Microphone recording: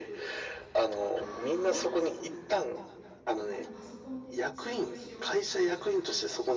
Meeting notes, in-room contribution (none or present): present